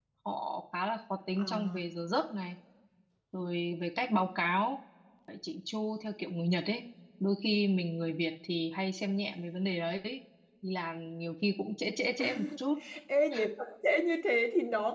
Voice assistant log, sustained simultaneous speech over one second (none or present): none